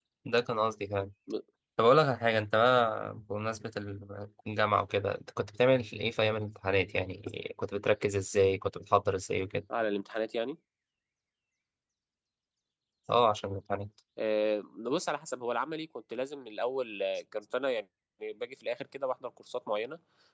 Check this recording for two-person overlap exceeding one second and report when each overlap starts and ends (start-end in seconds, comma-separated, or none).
none